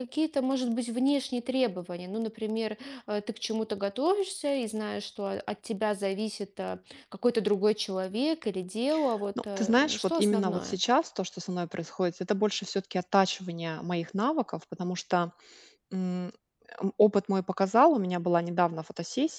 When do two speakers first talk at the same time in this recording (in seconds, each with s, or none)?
9.6 s